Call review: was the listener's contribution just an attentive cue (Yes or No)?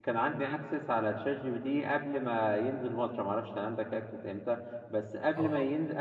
Yes